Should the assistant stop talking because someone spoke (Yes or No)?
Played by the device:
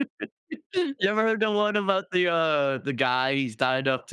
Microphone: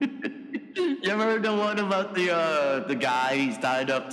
No